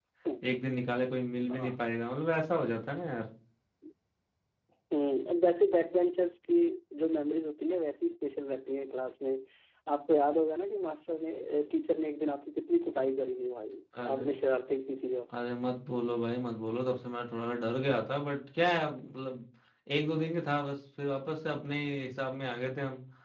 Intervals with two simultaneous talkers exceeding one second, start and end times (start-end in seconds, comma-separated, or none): none